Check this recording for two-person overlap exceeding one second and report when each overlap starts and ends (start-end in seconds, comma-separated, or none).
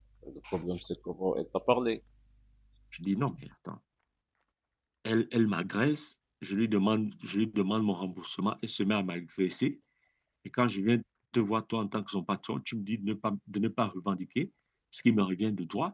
none